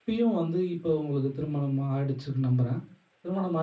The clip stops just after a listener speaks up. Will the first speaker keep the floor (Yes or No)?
Yes